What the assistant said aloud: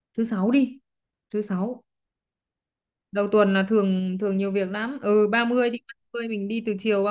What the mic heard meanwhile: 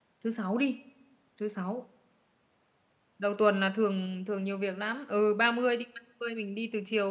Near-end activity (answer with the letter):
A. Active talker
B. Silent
B